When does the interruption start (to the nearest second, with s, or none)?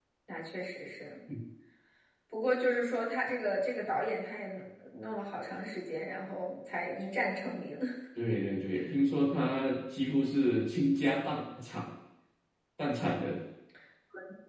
none